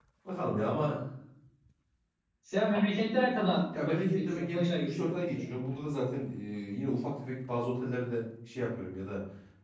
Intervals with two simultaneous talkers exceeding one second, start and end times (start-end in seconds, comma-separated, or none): 3.8-5.5